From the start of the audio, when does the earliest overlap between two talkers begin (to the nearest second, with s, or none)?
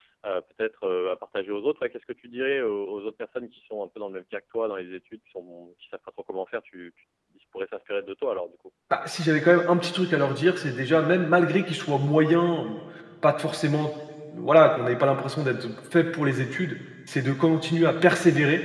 none